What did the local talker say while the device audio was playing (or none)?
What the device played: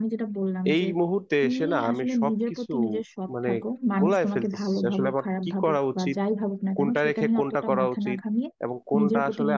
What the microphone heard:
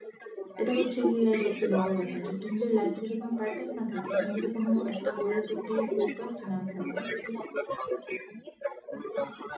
এটা হচ্ছে গিয়ে সবচেয়ে বড় ব্যাপার যে তুমি যদি লাইফে যদি কোনো পারপাস না থাকে তুমি যদি কোনো একটা গোলের প্রতি যদি ফোকাসড না থাকো